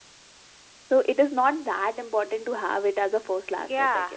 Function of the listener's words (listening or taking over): taking over